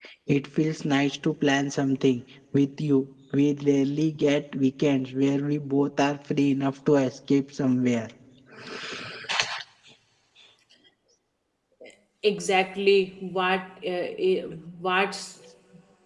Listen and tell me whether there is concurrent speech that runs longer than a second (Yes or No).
No